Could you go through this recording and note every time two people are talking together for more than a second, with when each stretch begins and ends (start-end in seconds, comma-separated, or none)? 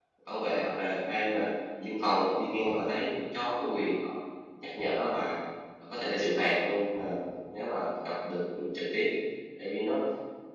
none